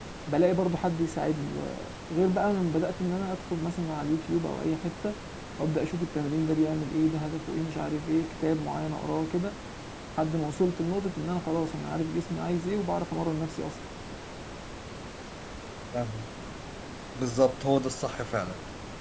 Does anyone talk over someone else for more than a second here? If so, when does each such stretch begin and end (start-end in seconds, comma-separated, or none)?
none